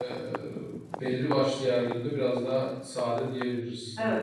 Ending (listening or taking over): taking over